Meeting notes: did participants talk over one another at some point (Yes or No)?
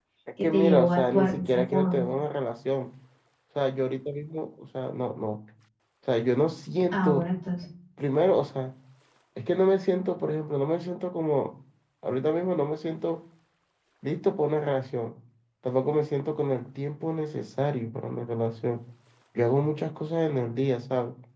Yes